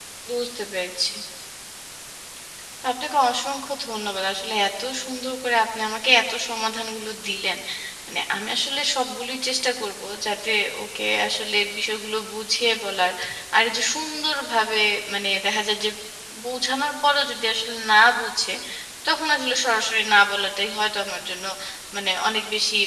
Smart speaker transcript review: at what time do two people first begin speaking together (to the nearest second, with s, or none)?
none